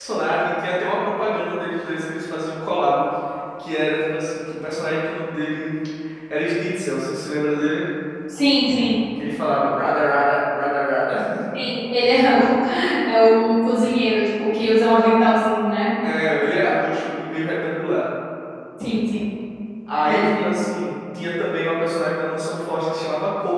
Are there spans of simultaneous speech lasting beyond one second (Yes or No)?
No